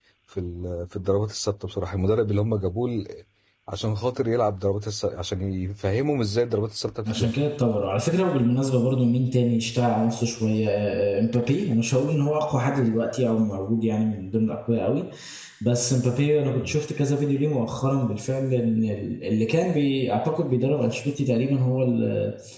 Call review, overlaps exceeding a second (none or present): none